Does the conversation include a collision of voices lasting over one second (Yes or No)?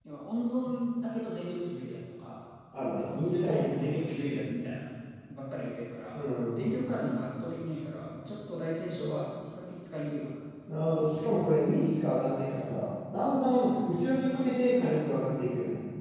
Yes